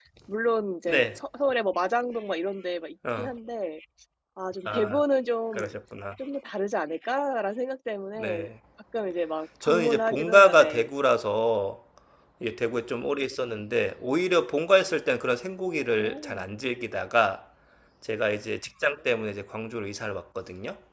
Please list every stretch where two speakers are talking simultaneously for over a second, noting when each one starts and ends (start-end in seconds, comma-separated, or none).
9.6-10.9